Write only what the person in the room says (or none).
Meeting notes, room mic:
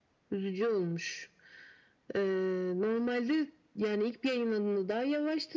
none